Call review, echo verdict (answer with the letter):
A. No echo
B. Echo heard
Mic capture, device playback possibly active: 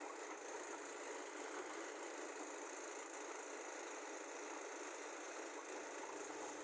A